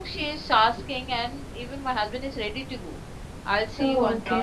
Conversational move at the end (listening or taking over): listening